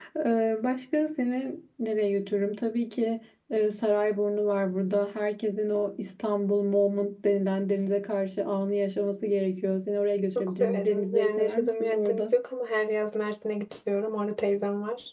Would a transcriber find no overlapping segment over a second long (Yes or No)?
No